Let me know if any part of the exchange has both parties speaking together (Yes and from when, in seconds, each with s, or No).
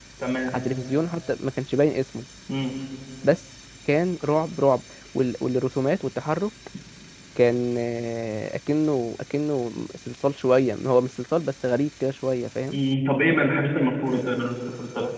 No